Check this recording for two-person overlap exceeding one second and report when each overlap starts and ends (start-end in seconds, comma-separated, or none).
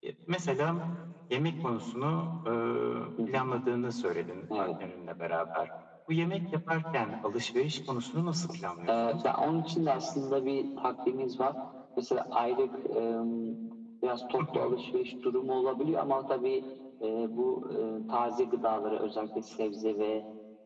none